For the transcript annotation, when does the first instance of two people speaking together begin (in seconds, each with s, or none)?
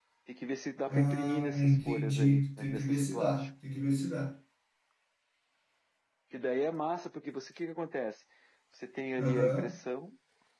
0.9 s